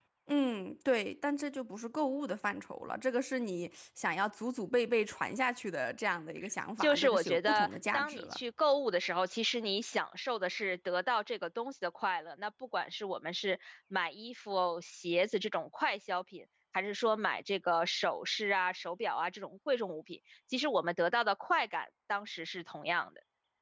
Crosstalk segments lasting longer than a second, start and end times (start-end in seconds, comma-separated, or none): 6.8-8.4